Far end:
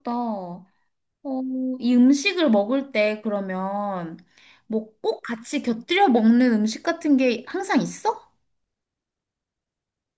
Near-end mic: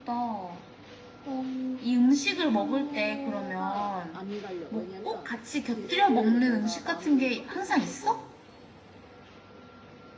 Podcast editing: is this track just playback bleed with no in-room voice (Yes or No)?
No